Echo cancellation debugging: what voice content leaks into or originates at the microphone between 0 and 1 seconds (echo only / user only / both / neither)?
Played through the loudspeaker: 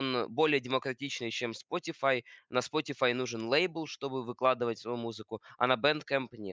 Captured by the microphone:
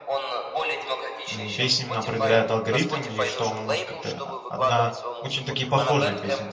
echo only